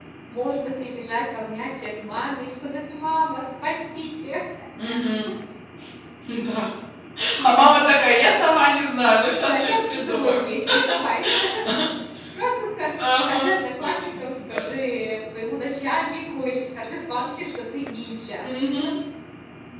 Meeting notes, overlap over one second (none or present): present